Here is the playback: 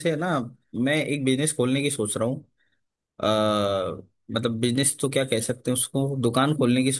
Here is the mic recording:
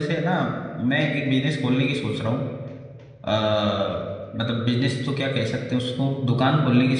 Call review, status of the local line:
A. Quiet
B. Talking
A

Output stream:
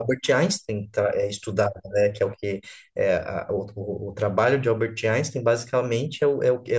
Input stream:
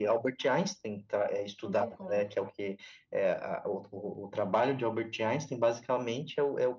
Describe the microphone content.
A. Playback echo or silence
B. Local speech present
B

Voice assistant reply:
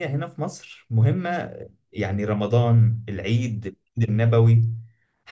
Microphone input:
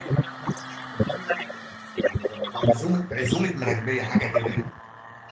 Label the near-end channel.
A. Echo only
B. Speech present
B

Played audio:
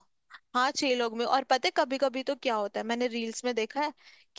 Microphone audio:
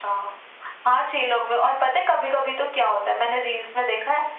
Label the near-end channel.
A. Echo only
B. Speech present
A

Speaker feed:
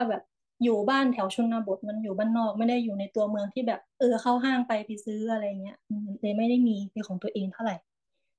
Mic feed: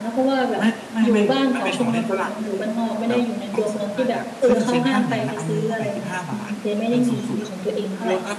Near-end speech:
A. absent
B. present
B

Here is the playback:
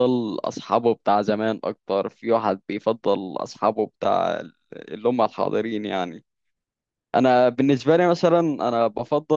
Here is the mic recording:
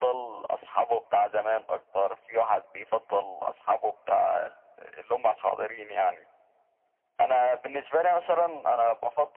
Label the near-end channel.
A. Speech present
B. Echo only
B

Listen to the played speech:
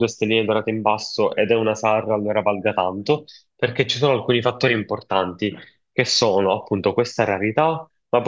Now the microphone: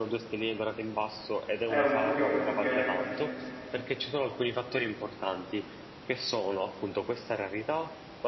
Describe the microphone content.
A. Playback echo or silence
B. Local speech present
B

